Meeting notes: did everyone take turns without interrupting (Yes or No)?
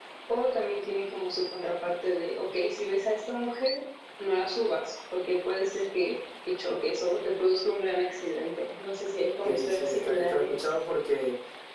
No